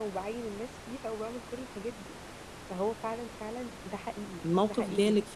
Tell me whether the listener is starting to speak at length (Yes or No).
Yes